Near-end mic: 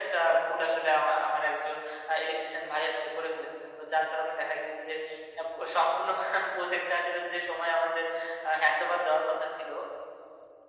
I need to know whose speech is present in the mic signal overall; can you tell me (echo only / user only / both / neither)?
echo only